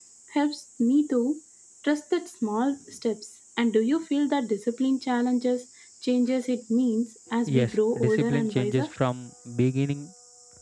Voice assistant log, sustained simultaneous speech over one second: present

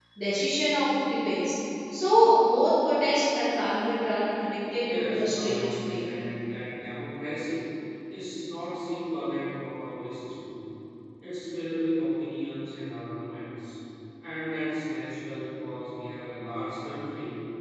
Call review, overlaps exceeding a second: present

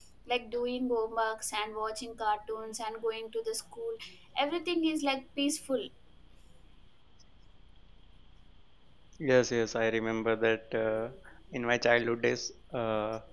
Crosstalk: none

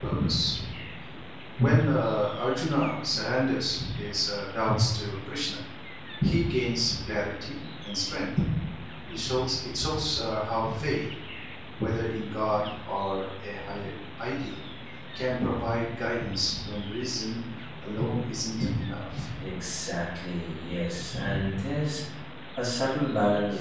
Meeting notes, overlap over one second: none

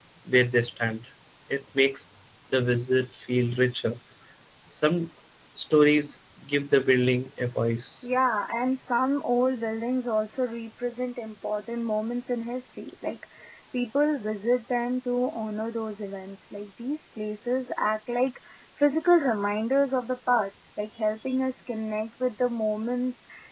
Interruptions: none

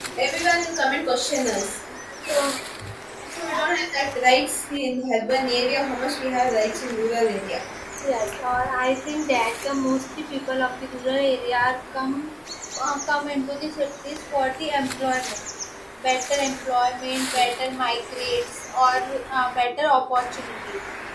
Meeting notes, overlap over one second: none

